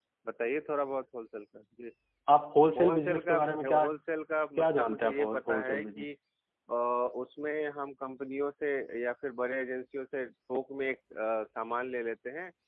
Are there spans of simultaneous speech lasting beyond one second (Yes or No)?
Yes